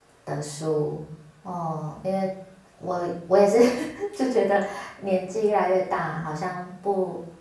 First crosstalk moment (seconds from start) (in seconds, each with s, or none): none